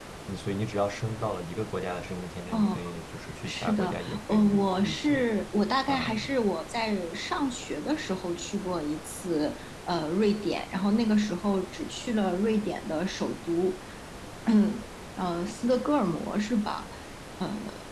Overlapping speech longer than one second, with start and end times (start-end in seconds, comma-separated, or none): 3.5-5.3